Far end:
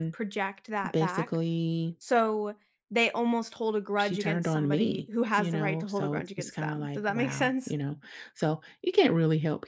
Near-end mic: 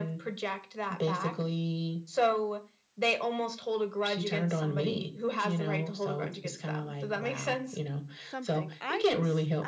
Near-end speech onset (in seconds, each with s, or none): 8.2 s